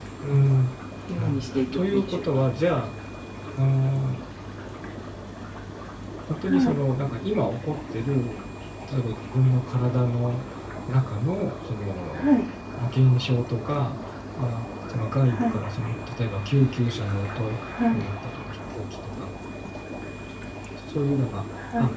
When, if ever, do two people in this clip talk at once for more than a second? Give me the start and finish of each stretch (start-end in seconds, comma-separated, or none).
1.2-2.4